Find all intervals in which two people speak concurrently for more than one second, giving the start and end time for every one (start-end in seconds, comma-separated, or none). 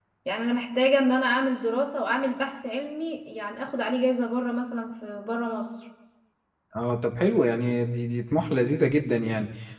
none